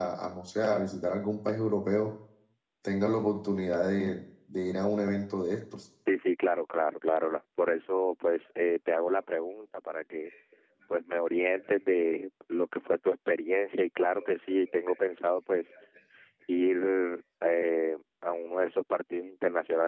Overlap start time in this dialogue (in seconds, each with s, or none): none